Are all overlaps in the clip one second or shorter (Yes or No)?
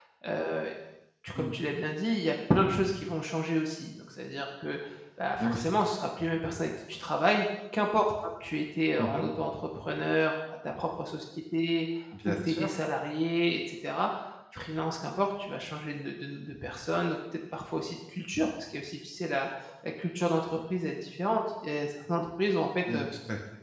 Yes